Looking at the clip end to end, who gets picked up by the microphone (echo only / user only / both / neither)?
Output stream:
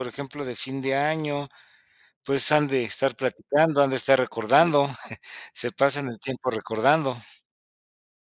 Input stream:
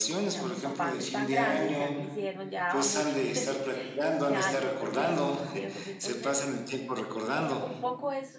both